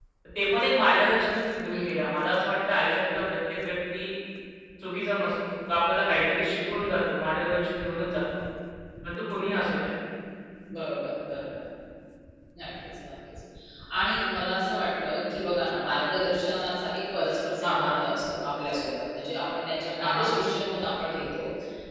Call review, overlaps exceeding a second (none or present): none